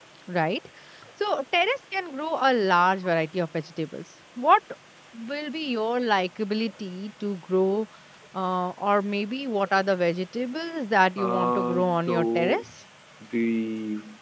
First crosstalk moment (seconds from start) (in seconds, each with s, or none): 11.2 s